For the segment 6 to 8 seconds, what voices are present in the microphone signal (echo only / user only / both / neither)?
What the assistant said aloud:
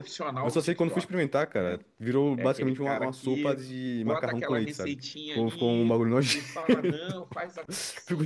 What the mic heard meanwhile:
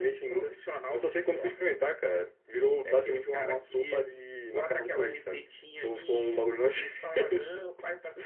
echo only